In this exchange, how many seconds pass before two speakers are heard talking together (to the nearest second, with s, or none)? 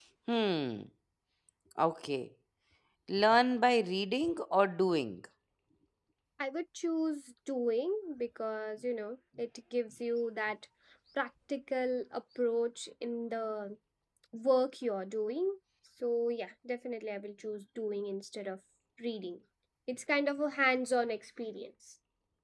none